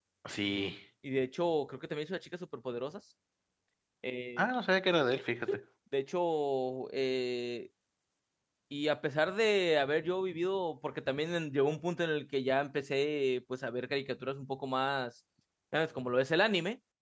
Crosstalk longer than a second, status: none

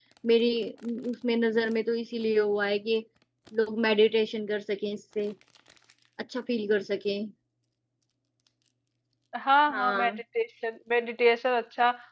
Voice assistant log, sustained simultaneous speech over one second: none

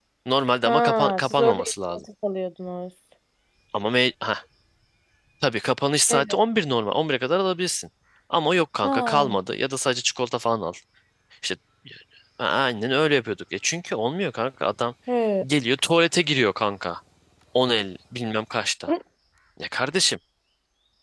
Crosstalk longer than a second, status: present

